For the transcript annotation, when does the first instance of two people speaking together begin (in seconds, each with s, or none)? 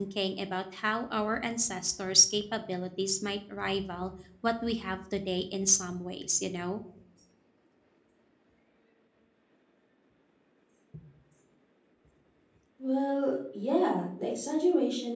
none